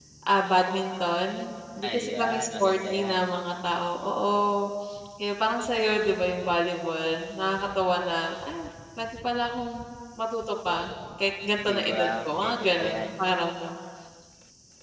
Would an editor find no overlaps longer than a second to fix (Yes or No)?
No